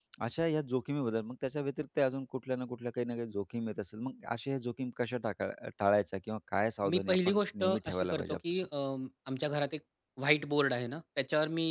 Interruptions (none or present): present